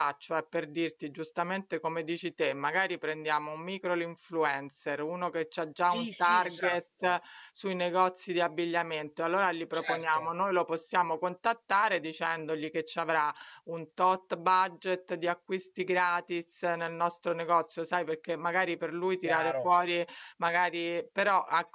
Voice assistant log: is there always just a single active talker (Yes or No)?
No